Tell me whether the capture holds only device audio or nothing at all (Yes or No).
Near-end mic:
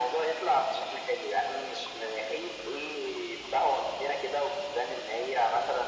Yes